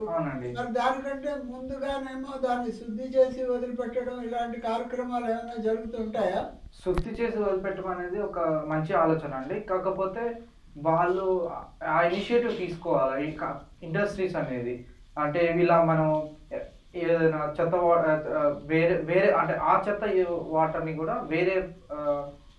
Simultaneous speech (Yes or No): No